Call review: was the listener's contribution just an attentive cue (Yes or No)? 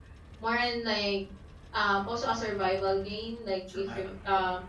Yes